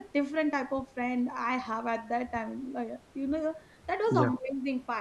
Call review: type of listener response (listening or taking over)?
listening